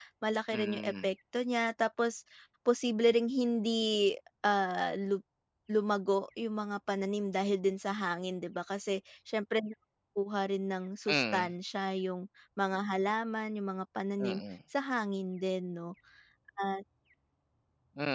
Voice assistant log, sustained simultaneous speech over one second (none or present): none